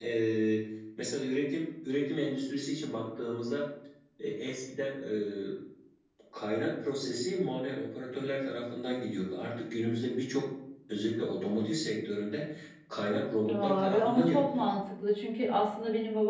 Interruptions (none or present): present